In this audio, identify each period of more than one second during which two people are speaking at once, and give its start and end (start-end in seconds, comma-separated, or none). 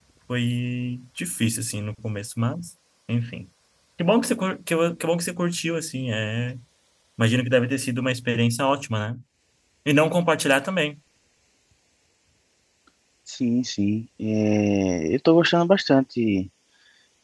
none